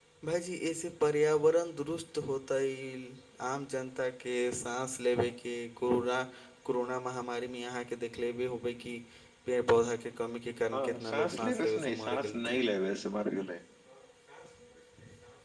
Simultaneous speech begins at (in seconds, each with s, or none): 10.7 s